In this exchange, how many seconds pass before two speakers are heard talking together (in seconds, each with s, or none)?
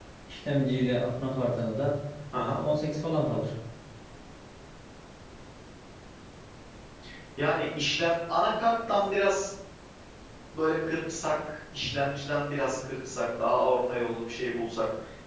none